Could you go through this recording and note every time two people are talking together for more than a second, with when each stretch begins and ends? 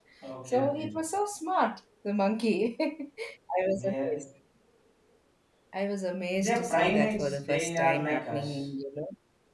6.4-8.7

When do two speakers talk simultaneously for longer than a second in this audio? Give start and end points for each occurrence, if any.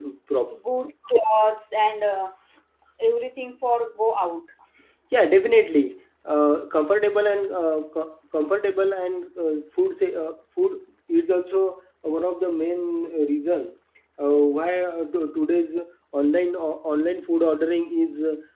none

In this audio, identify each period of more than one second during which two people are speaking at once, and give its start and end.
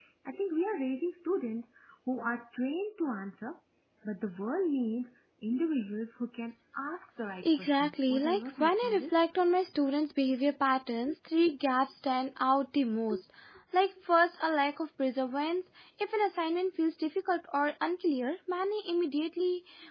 7.4-9.2

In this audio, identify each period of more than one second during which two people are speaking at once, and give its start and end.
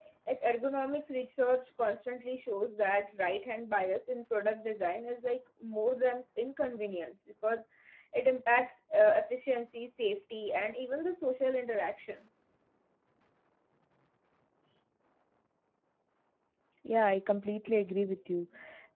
none

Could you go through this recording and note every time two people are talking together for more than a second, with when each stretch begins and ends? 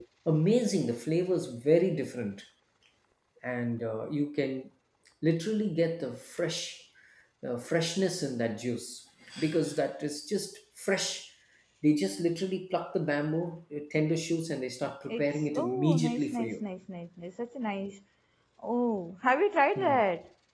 15.1-16.6

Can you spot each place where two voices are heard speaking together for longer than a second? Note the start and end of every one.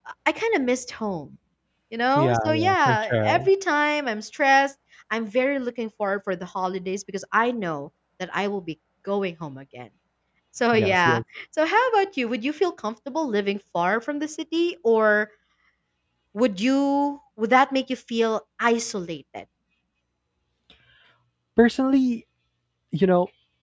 2.1-3.5

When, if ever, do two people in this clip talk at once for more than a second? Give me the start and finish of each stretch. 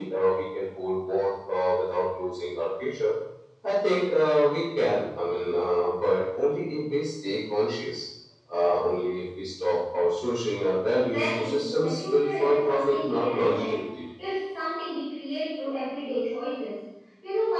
10.9-13.8

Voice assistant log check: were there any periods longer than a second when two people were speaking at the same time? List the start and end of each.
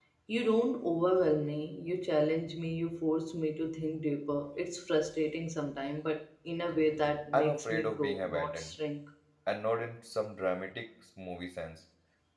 7.3-8.8

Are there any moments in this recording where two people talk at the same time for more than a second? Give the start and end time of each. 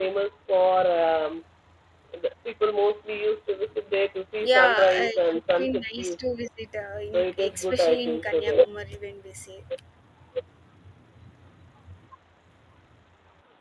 4.4-6.2, 7.1-8.6

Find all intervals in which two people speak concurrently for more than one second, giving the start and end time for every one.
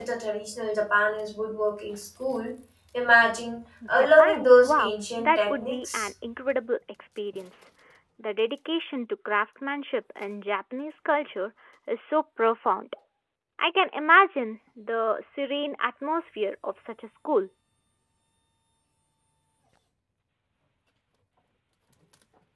3.9-6.1

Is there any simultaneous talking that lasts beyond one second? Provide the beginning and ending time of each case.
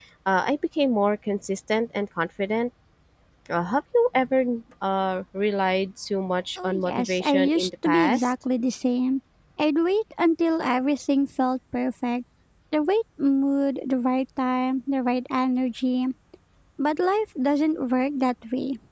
6.6-8.3

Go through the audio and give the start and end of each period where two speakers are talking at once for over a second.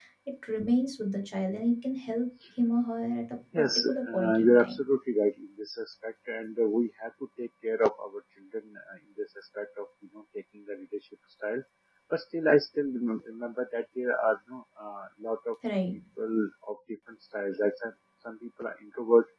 3.6-4.8

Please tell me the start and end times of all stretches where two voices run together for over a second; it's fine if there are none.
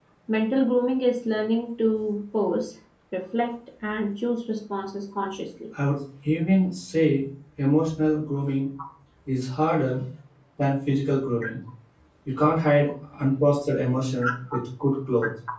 none

